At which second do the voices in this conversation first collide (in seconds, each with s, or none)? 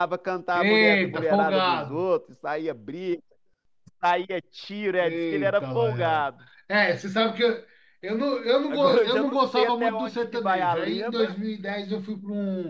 0.5 s